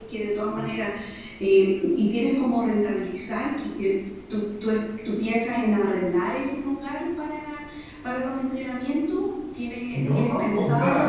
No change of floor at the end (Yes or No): No